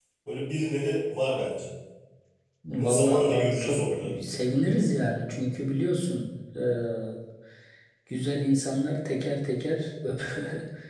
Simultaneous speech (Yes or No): Yes